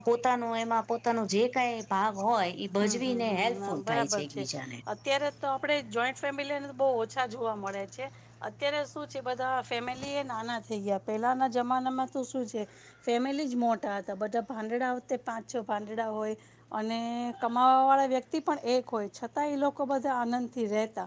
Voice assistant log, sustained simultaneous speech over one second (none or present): present